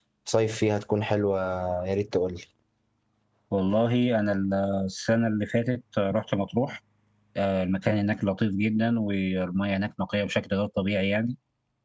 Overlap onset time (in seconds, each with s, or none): none